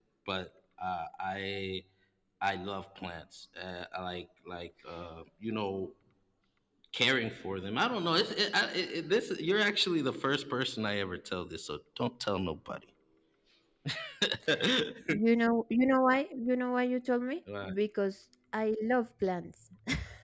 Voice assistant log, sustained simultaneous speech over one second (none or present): none